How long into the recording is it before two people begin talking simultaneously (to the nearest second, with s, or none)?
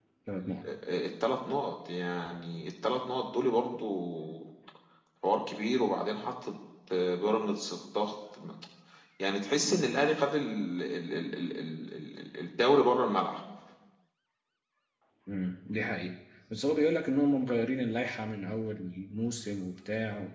none